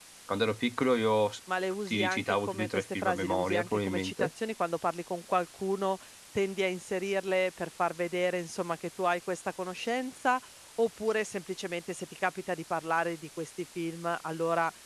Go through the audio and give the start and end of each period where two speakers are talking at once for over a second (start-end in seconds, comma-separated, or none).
1.9-4.3